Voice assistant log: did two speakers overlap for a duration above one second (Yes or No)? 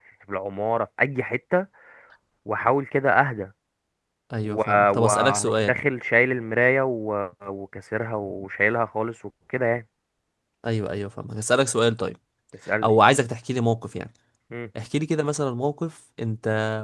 Yes